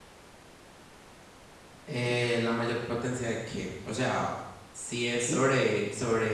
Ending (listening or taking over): listening